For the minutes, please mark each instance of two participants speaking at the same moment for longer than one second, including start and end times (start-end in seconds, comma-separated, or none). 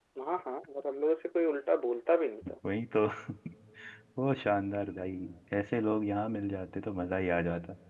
none